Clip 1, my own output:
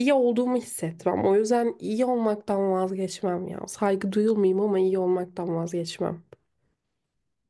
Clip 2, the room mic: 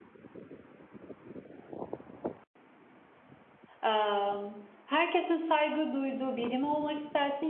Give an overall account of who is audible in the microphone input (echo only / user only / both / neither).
user only